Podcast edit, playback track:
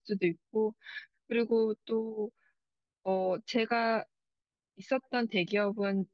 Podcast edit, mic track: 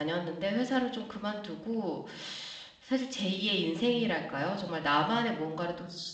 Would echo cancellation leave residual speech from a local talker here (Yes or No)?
Yes